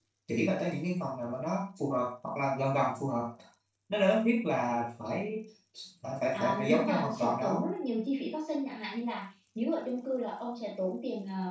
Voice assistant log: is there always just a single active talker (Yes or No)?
No